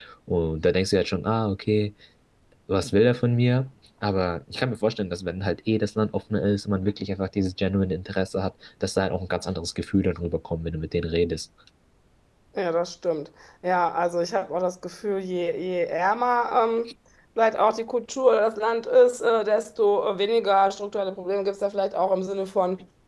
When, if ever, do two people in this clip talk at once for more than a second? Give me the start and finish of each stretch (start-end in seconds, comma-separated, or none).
none